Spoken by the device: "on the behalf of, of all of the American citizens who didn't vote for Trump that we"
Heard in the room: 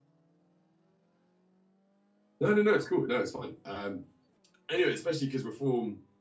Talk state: user only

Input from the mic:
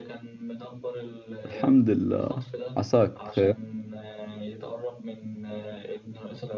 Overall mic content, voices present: both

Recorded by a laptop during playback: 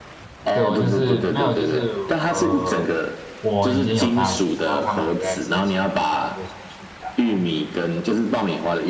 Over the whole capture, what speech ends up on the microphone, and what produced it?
both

